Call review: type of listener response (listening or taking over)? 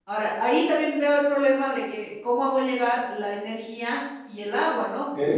taking over